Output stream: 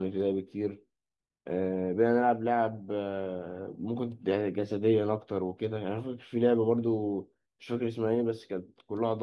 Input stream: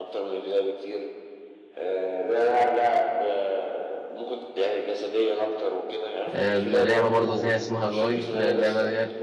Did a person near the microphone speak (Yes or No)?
Yes